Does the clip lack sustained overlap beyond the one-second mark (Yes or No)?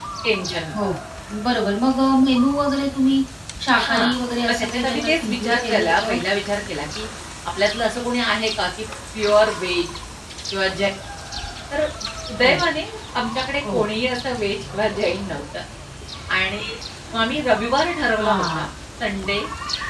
No